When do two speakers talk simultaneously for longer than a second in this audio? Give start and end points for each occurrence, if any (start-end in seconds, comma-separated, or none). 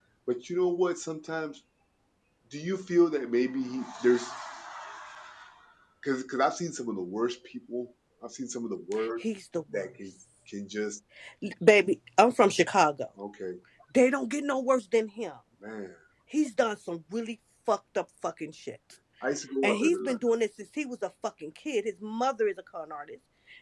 none